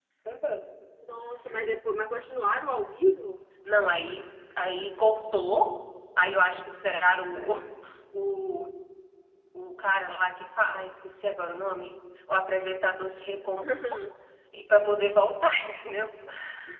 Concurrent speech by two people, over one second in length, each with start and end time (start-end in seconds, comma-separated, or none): none